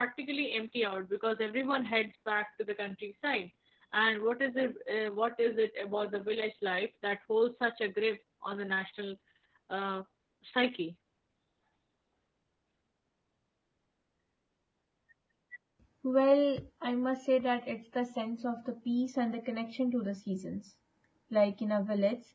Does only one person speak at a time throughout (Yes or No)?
Yes